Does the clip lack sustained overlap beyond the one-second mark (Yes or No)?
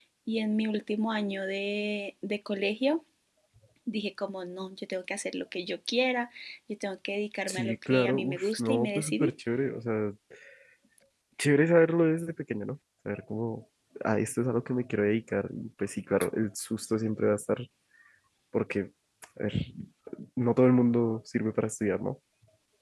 No